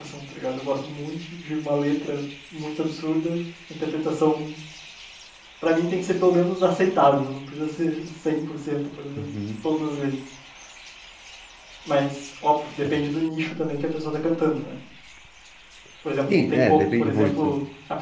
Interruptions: present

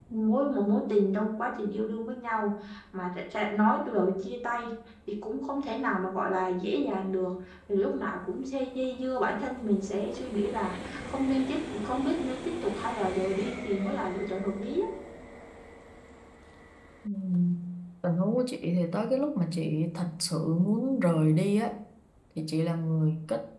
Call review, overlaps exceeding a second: none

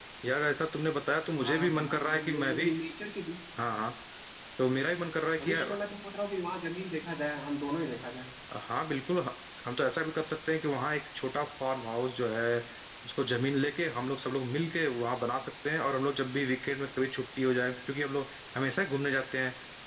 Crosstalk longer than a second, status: present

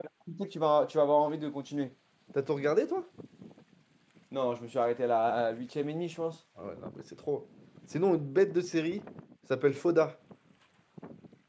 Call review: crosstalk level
none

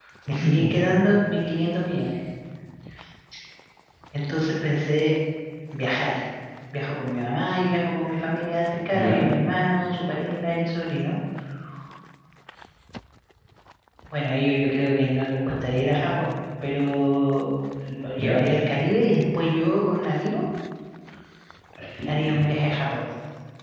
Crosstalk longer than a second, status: none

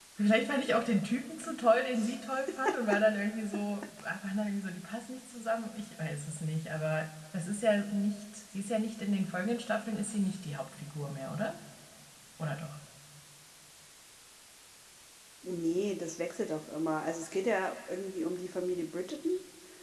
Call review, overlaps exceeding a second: none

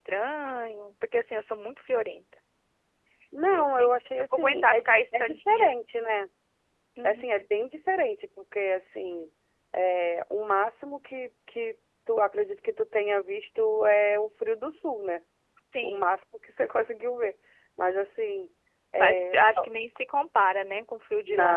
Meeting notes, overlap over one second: present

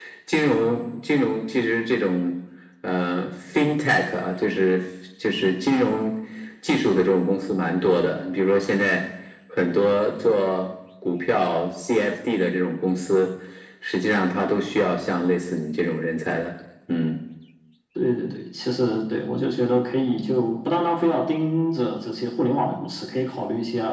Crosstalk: none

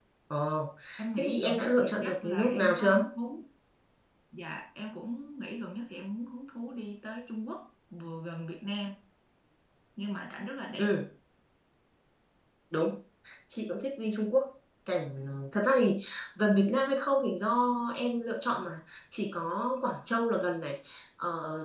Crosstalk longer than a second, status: present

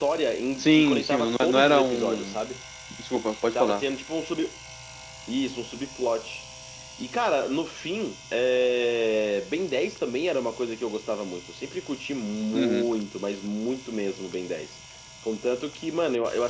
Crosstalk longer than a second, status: present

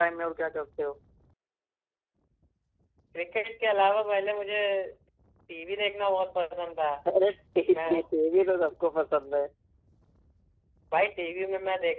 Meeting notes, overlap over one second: none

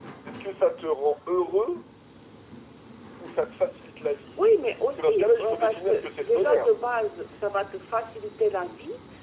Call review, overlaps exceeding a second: present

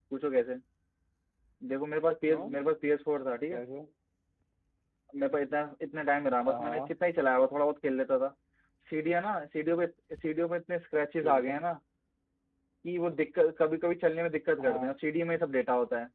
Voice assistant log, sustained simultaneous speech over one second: none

